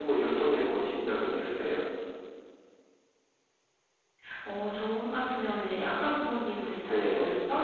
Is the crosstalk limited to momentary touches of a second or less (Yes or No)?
Yes